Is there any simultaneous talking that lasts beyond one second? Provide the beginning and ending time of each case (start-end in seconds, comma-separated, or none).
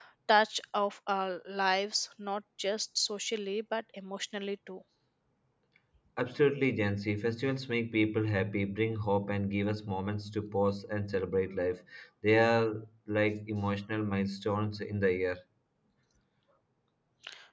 none